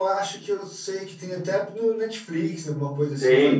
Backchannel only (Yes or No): No